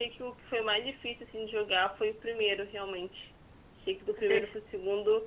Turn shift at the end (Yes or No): No